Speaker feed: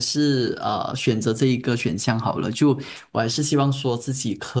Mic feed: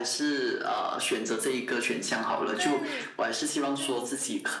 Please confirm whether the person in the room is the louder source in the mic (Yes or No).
No